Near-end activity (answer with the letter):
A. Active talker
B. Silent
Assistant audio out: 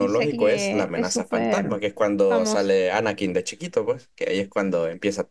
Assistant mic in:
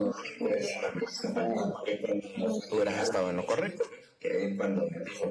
A